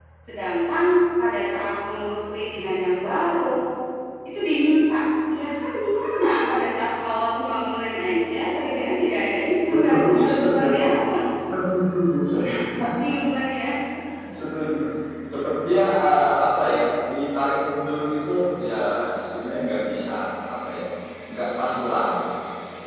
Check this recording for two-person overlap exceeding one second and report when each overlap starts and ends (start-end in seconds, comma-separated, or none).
9.7-11.0